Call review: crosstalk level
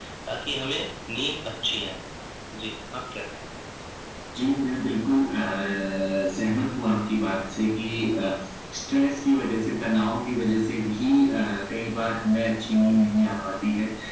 none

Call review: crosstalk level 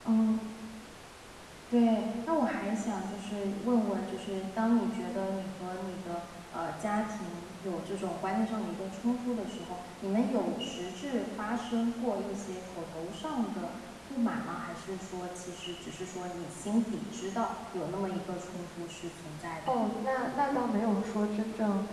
none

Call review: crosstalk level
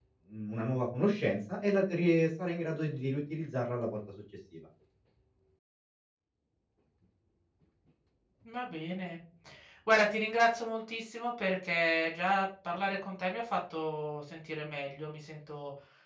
none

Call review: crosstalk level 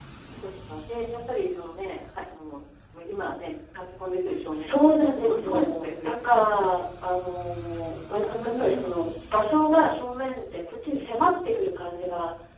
present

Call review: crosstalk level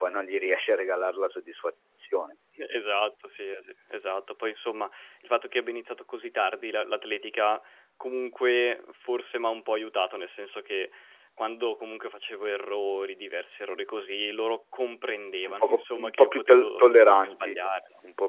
present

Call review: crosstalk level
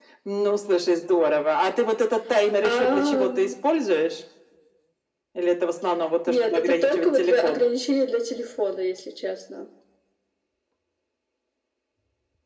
present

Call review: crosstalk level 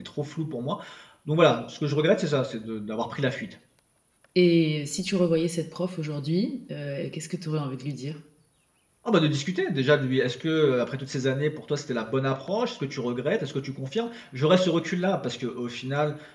none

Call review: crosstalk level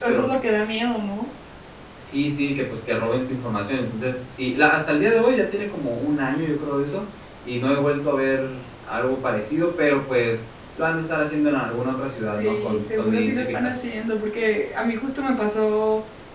present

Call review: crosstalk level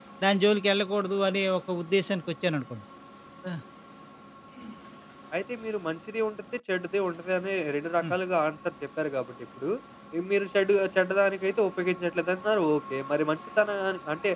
none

